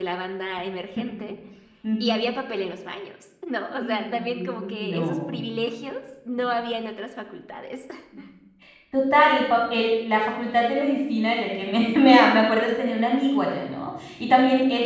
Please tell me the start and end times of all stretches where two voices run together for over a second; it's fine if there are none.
3.8-5.4

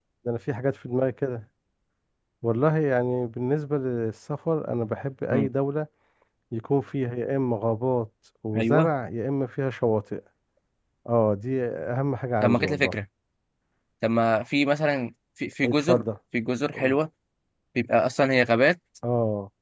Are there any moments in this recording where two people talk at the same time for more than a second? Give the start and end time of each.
none

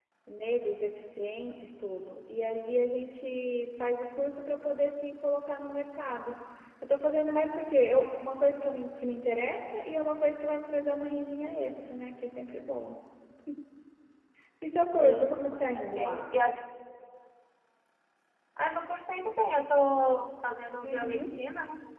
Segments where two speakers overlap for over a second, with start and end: none

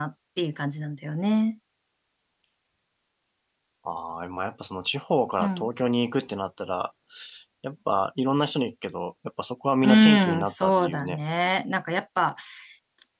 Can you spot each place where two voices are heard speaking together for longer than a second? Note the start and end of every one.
9.8-11.2

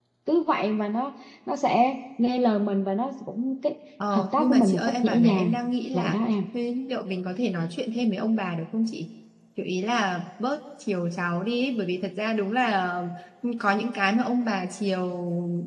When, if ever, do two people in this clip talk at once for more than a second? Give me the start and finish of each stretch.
4.1-5.5

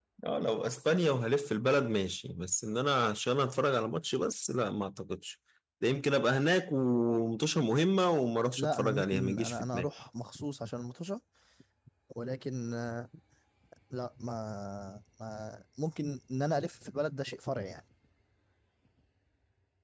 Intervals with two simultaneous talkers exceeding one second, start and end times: 8.6-9.9

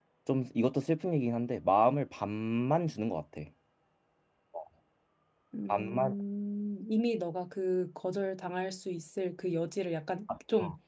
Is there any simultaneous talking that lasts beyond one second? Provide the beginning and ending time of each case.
none

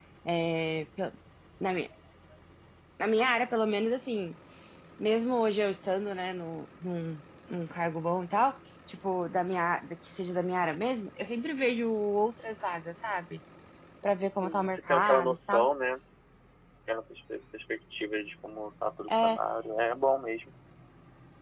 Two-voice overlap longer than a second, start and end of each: 14.3-15.7

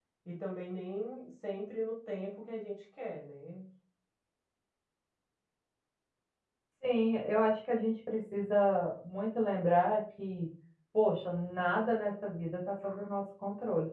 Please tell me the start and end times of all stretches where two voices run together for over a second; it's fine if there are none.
none

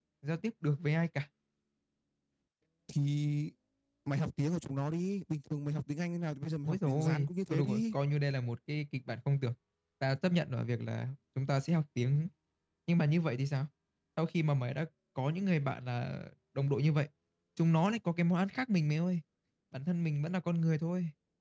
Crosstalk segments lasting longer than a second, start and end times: 6.7-7.9

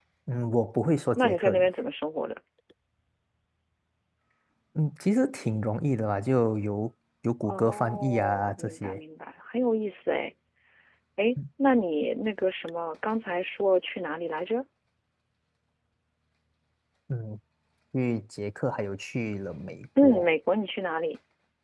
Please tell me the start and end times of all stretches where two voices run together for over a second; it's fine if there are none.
7.5-9.0

